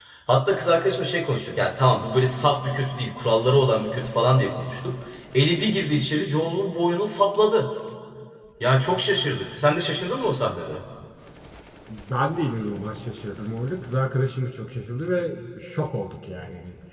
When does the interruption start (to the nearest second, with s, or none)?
none